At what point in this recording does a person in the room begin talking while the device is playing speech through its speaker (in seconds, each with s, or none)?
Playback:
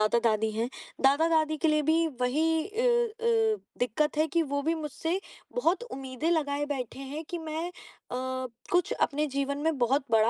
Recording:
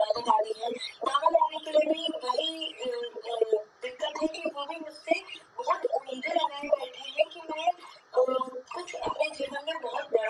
none